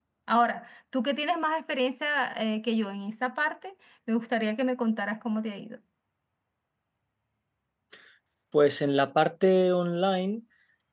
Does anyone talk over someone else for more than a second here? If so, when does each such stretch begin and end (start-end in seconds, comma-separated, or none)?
none